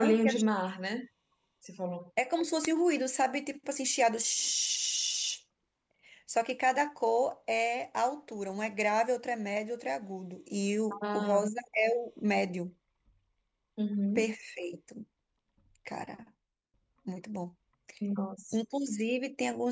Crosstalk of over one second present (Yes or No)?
No